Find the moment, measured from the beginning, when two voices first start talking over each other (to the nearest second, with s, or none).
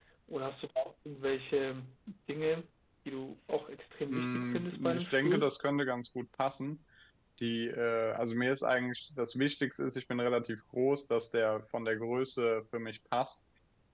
4 s